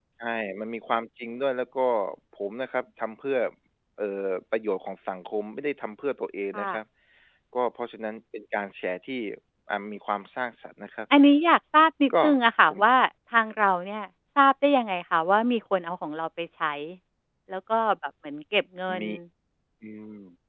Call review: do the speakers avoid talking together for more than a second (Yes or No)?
Yes